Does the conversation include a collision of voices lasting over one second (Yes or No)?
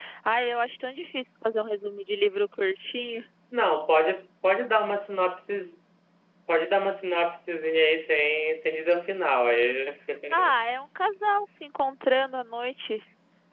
No